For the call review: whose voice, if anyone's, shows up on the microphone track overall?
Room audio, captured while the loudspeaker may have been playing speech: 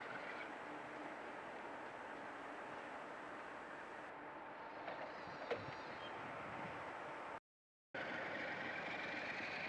neither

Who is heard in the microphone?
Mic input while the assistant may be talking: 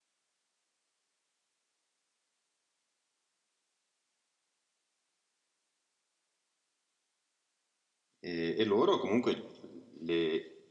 user only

